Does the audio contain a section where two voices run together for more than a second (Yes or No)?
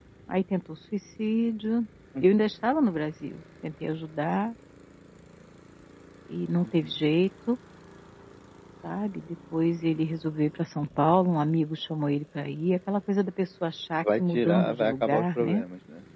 Yes